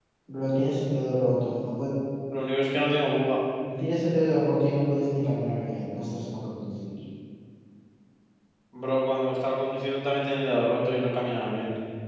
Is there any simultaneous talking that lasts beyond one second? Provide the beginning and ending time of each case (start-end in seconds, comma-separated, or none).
none